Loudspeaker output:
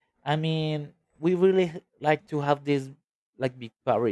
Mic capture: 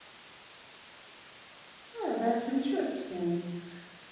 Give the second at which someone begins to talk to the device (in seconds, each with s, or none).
1.9 s